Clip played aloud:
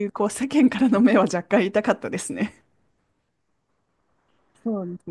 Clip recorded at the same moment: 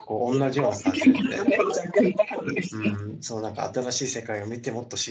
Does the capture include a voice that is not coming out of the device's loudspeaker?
Yes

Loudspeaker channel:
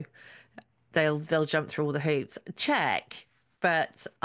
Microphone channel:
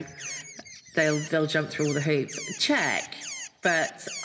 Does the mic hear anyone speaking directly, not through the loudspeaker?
No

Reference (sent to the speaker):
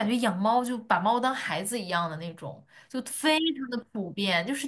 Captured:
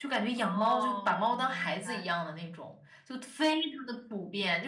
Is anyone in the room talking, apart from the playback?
Yes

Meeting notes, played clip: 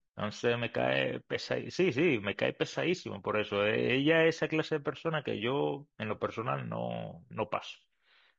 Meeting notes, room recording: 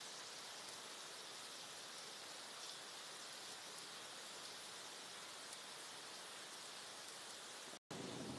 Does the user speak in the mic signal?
No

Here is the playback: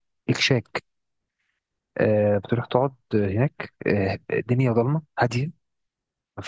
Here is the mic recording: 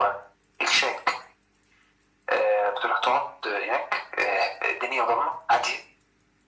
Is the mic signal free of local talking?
Yes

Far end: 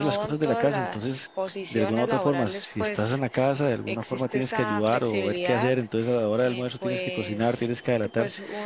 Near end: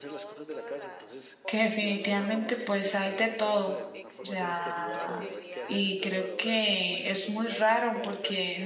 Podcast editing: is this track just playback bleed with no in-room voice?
No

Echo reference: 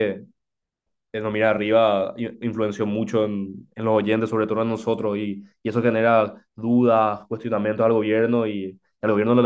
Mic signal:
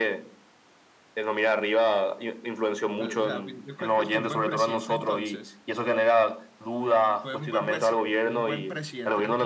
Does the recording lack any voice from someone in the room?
No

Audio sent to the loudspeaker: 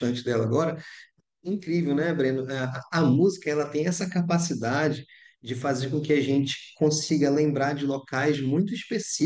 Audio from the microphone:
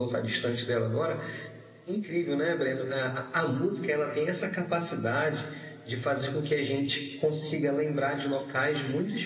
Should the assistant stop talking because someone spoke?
No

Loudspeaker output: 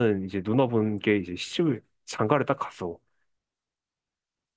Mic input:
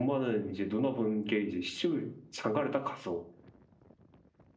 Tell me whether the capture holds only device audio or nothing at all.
Yes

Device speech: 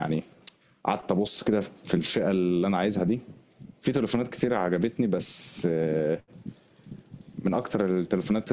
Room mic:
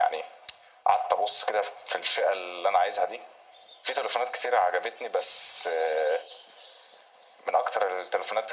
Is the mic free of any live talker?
Yes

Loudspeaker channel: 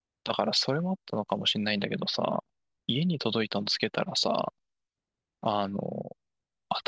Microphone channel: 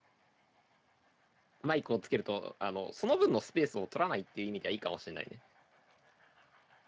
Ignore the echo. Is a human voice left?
Yes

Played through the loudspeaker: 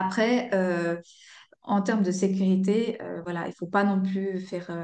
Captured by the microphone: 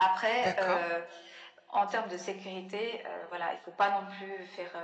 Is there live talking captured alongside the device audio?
Yes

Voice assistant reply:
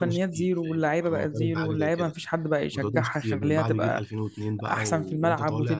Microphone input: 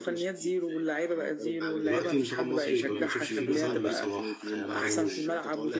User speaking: Yes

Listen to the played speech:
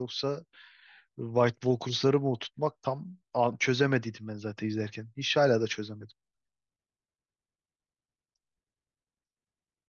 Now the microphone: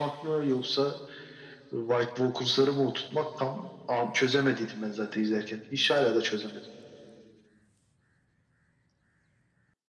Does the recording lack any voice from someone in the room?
Yes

